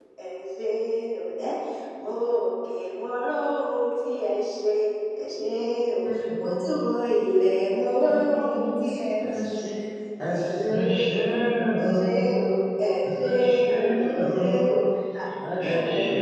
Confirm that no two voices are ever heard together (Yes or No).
No